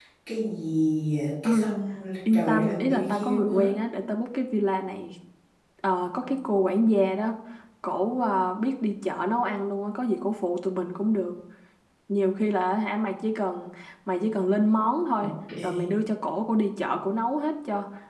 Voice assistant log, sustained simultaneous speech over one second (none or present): present